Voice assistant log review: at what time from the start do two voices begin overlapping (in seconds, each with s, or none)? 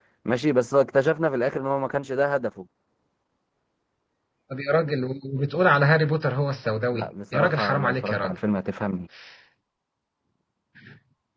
6.9 s